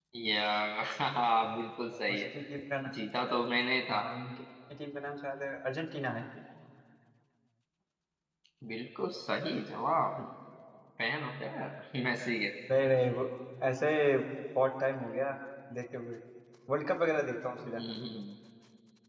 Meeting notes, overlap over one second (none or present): none